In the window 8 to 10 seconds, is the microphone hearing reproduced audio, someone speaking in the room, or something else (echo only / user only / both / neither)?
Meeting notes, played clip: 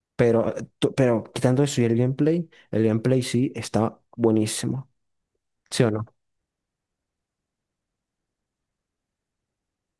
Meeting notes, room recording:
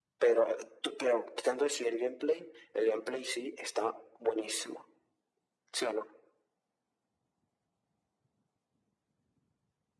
neither